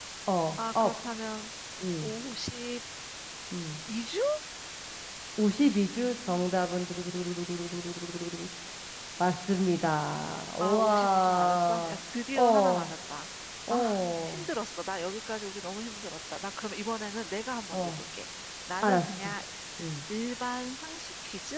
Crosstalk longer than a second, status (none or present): present